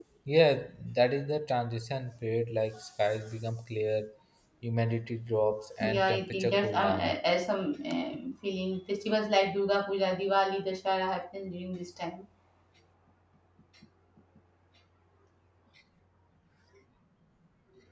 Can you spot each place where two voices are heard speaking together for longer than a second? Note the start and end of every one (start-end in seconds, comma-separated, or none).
5.8-7.1